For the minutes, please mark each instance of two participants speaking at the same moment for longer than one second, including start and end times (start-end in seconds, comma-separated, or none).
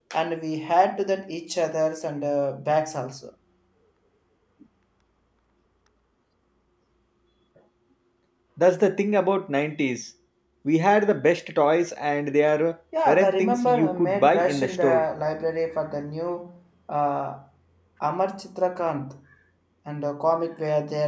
13.1-15.0